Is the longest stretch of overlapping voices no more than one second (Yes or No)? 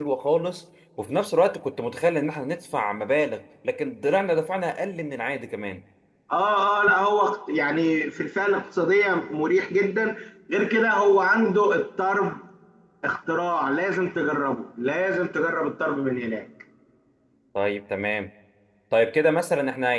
Yes